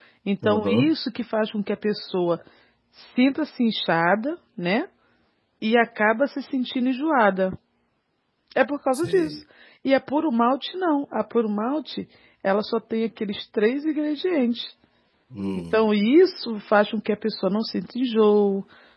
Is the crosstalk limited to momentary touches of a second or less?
Yes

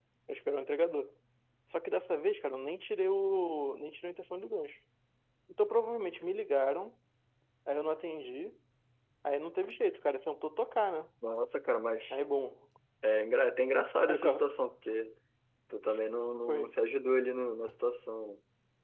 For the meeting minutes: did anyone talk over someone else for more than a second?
No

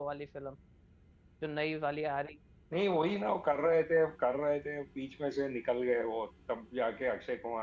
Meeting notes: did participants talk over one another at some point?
No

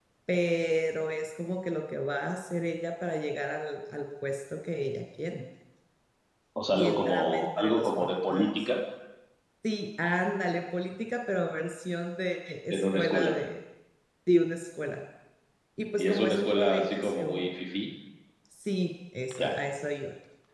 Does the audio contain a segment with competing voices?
Yes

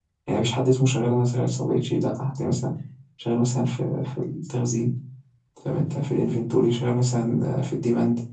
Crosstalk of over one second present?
No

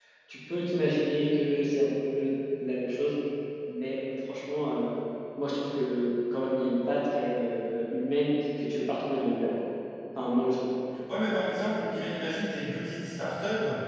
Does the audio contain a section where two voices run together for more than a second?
No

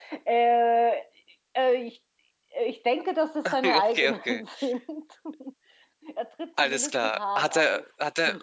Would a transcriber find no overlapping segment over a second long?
No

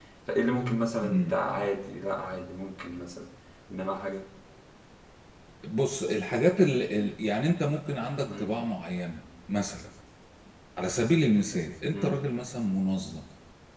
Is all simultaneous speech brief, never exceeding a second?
Yes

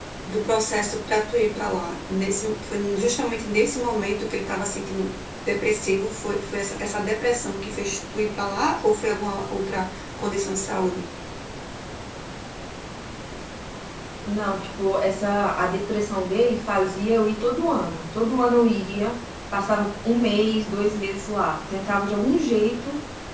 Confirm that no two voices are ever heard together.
Yes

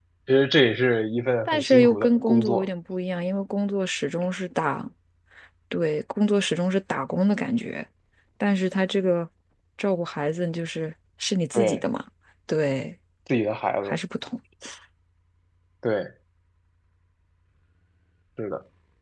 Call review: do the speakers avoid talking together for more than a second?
No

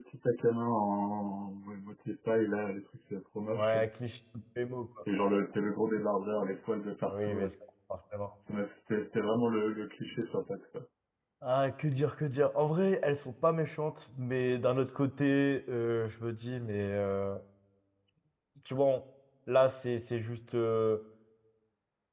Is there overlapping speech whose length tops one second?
No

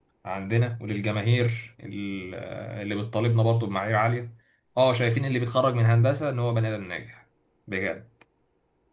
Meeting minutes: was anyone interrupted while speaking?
No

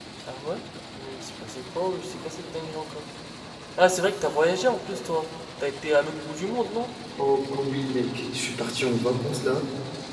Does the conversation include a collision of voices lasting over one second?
No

